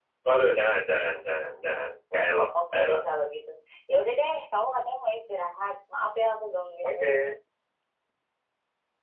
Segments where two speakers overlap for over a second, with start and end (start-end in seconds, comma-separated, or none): none